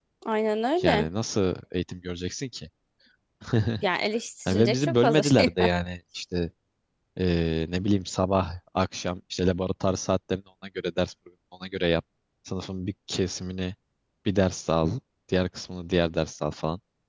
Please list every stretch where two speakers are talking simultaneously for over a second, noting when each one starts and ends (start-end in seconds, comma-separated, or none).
4.5-5.7